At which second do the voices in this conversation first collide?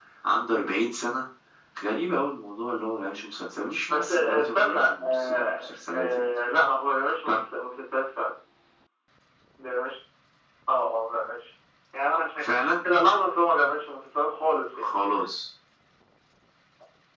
3.9 s

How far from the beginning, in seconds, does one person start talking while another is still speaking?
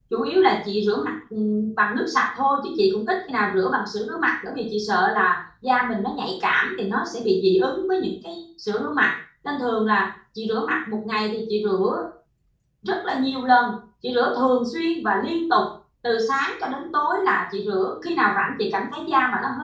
none

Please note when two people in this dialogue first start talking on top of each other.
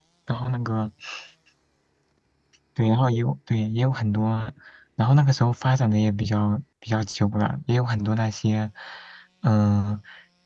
none

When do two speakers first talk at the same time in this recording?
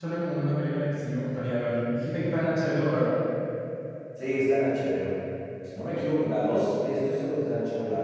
none

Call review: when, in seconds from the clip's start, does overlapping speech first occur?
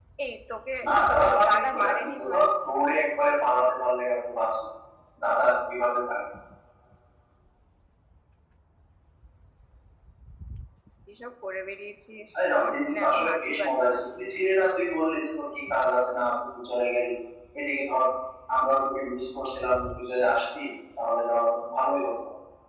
1.1 s

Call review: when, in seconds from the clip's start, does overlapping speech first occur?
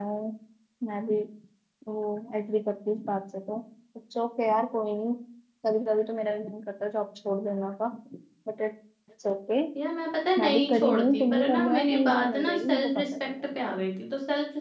10.4 s

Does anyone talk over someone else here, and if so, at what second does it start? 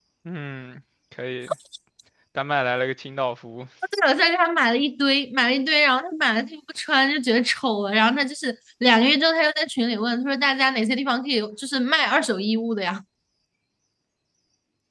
none

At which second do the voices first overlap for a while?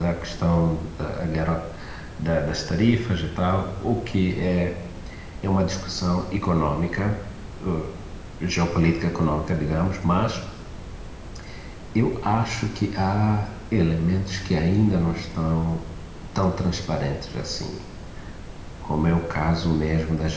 none

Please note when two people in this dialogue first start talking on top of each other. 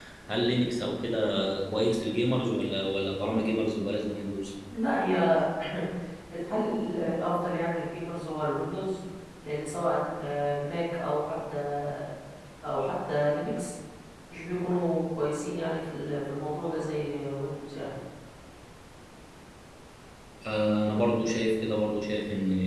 none

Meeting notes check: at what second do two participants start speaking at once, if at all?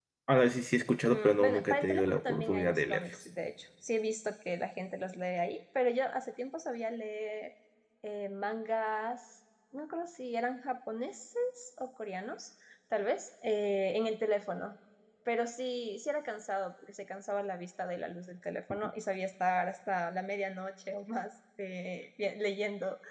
1.1 s

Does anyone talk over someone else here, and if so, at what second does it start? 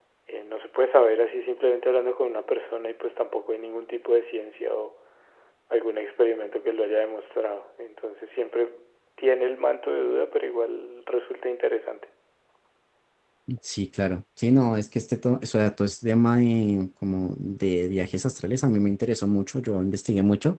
none

